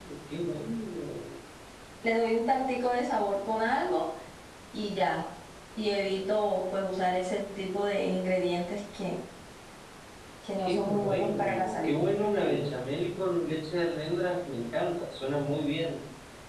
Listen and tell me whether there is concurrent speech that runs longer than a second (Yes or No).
Yes